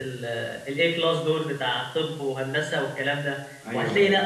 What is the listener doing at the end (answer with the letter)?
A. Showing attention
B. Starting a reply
A